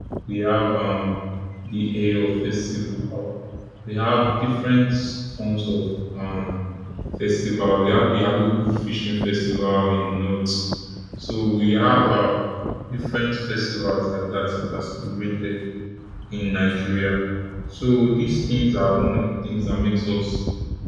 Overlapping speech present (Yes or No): No